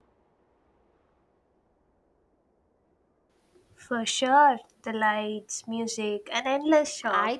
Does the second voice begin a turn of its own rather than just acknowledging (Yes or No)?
Yes